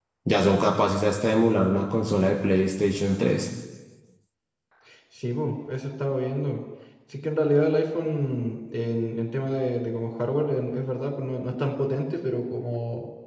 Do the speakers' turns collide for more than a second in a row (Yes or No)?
No